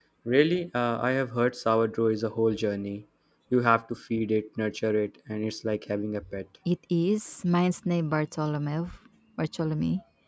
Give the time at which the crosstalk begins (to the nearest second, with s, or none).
none